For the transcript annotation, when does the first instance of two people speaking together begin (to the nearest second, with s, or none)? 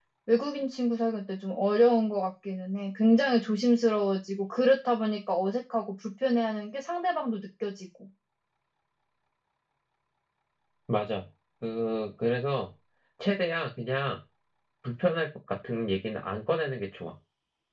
none